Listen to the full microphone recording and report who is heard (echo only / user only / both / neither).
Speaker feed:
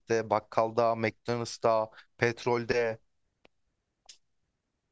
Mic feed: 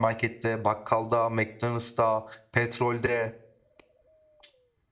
echo only